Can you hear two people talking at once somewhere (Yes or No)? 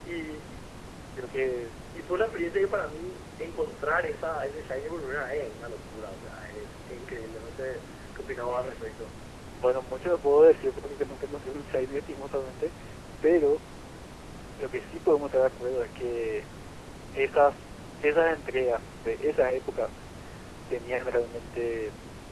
No